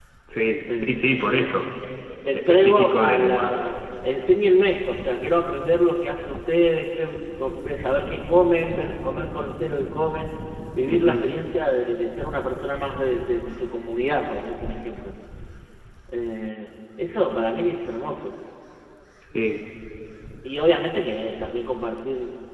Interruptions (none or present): present